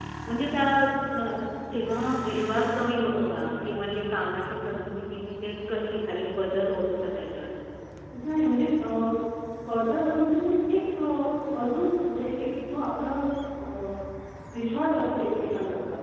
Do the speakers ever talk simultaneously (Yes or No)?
No